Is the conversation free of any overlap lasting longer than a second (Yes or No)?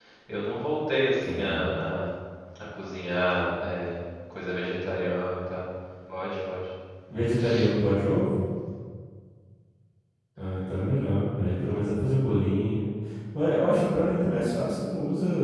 Yes